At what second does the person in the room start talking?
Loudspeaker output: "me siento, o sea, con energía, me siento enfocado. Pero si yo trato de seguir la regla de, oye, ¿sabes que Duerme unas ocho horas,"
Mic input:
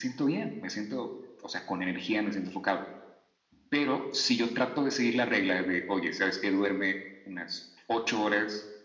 none

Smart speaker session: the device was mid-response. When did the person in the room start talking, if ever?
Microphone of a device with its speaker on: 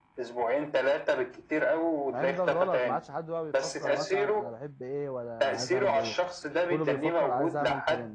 2 s

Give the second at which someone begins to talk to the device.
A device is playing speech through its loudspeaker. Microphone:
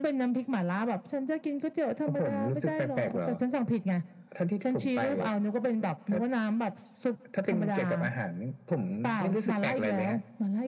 none

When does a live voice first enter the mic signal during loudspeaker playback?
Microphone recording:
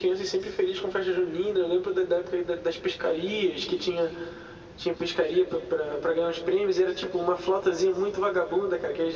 none

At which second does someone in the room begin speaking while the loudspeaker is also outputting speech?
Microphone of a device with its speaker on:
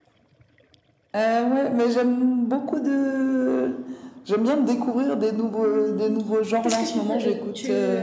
6 s

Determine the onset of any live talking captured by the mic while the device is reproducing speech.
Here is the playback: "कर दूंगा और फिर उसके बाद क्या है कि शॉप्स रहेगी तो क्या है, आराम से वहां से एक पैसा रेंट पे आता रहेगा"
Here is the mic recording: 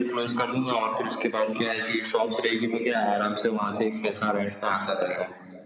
none

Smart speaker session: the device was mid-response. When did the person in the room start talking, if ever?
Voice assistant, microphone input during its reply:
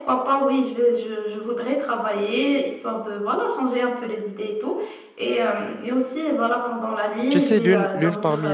7 s

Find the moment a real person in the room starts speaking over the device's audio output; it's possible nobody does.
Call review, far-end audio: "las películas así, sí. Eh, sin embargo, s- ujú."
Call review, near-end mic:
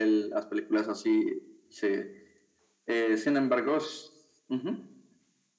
none

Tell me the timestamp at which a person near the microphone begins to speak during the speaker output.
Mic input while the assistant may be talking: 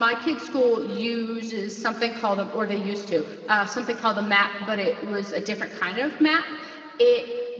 none

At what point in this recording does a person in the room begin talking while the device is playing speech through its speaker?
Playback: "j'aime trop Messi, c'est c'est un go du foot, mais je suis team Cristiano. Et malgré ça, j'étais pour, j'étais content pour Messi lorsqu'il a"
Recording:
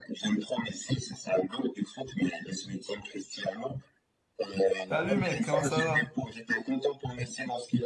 5 s

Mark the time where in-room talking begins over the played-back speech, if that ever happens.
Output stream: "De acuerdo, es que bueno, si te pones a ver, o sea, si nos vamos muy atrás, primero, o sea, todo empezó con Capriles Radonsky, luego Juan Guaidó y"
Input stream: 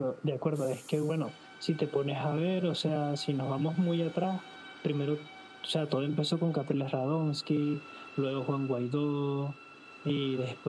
none

